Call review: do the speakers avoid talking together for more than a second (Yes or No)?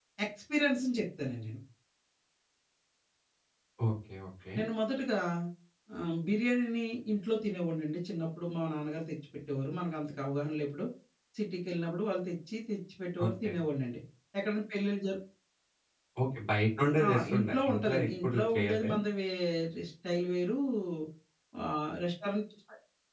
No